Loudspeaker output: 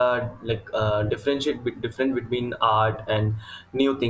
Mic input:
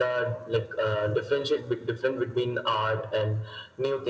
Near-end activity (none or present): none